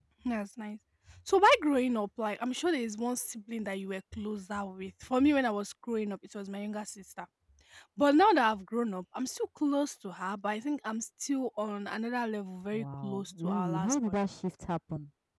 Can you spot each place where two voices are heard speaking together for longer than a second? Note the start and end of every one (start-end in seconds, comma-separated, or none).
12.7-14.1